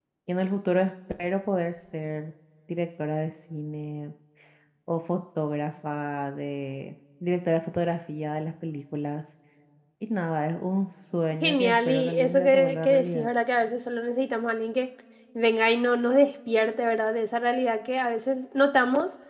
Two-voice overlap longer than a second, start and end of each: 11.4-13.3

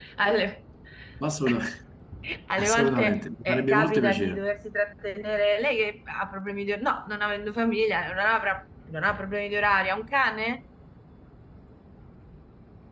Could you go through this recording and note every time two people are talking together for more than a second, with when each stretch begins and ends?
2.6-4.4

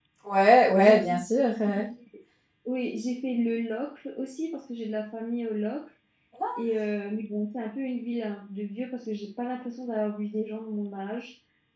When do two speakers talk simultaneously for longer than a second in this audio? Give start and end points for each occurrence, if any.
none

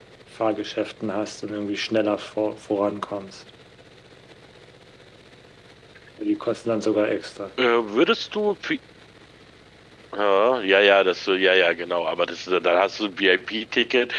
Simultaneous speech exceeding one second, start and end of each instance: none

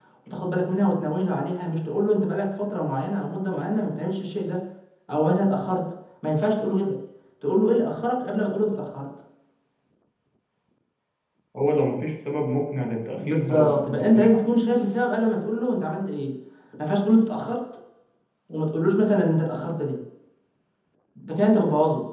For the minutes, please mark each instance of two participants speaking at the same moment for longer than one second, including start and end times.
13.2-14.4

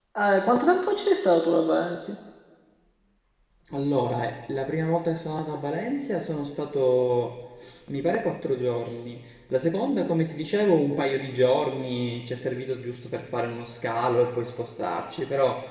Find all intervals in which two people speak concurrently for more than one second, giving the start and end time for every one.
none

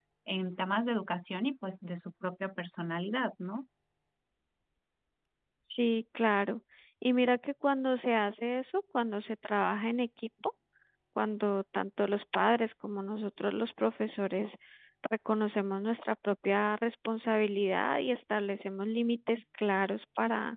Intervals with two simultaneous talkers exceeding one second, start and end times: none

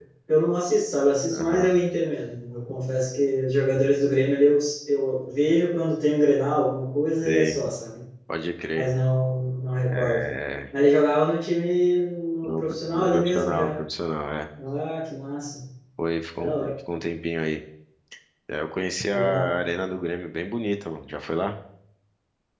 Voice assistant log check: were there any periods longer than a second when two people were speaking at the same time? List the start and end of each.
12.4-13.8

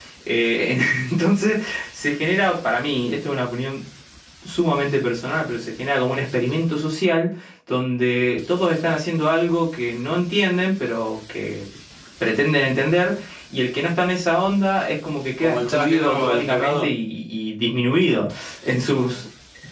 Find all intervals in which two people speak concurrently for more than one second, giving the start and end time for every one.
15.4-16.9

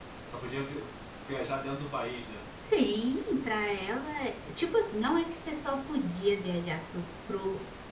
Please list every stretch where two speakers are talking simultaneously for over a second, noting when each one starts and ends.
none

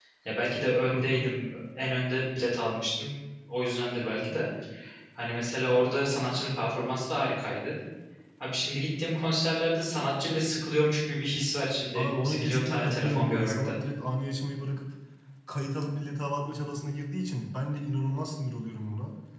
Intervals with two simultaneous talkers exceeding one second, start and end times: 11.9-13.8

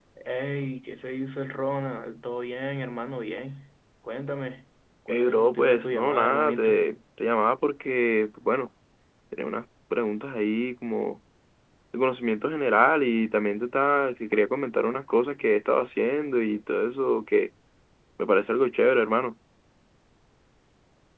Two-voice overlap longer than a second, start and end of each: 5.1-6.8

